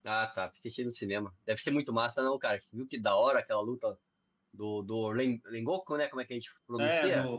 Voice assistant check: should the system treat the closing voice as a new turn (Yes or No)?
Yes